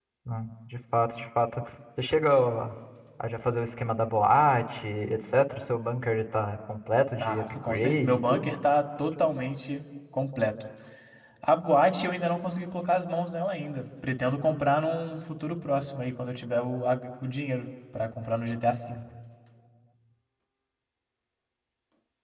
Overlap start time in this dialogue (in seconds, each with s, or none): 7.2 s